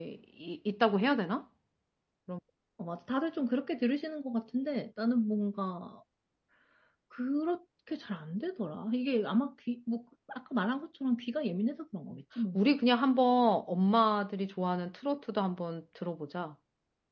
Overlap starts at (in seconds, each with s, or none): none